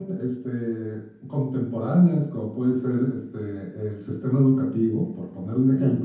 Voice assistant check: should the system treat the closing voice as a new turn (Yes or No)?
No